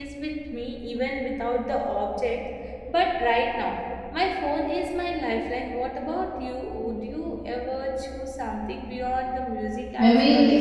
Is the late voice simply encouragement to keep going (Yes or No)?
No